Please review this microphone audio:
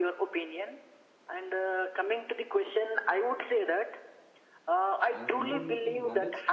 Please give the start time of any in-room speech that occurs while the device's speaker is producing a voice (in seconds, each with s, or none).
5.1 s